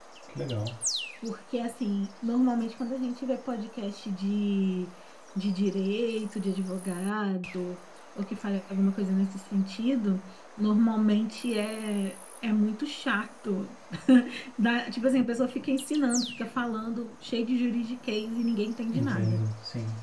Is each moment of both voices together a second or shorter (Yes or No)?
Yes